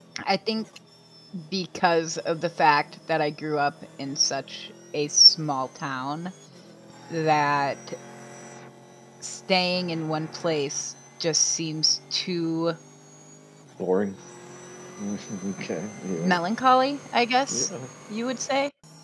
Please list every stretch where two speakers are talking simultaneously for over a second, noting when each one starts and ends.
none

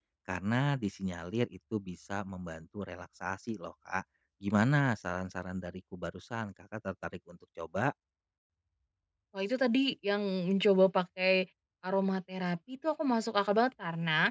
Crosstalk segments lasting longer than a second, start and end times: none

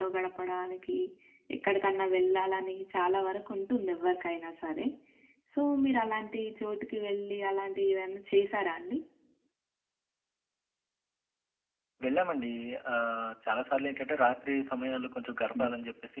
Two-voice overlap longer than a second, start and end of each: none

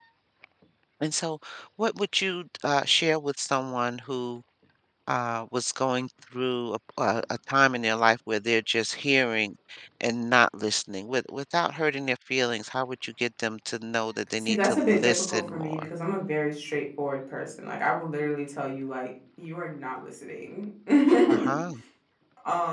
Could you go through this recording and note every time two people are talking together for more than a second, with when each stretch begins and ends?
14.4-15.9

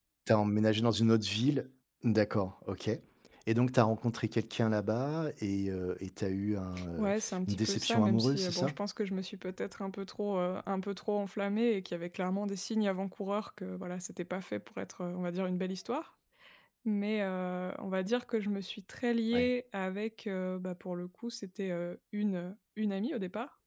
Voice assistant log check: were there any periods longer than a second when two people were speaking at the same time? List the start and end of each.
7.0-8.8

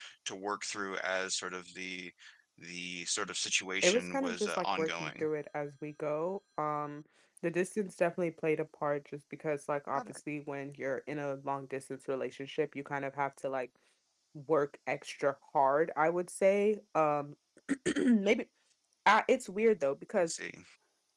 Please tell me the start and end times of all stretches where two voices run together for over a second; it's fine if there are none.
3.8-5.3

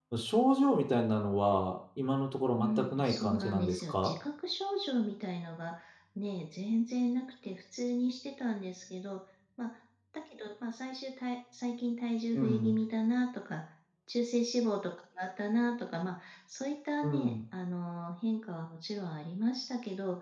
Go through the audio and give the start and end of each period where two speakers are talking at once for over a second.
2.6-4.1

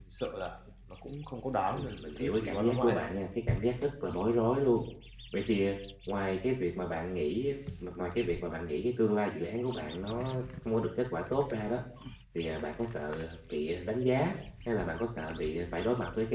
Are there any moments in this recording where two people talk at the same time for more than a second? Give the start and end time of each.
1.7-3.0

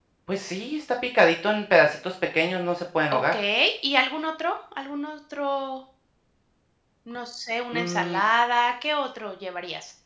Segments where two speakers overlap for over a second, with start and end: none

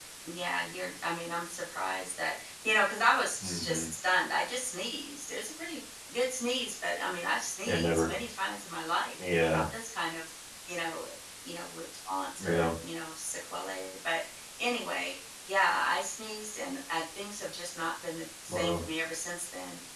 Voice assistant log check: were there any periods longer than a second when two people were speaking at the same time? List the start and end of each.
none

